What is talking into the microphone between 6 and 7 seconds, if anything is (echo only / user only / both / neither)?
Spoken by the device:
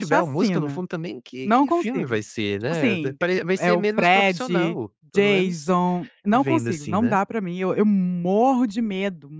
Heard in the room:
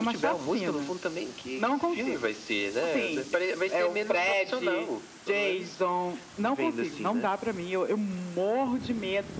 echo only